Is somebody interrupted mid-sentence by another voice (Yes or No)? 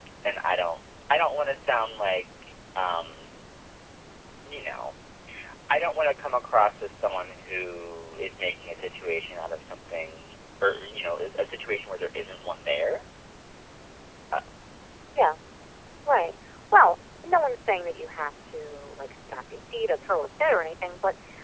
No